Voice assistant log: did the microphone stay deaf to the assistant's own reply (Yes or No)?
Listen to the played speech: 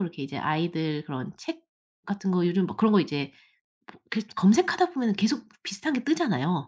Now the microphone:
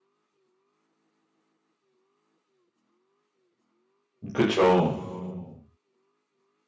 Yes